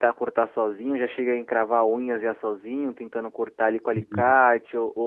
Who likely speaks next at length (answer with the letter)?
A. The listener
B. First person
B